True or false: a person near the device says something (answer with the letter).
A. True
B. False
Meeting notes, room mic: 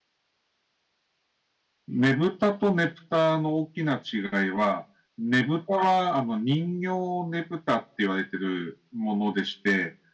A